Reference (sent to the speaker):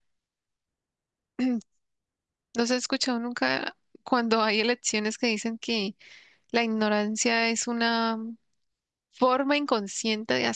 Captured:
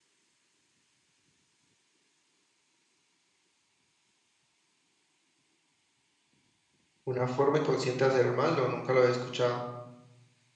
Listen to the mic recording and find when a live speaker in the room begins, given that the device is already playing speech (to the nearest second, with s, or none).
7 s